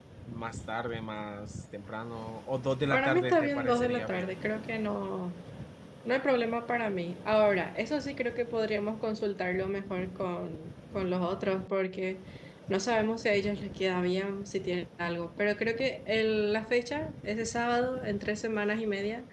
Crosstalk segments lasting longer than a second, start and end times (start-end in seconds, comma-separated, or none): 2.9-4.3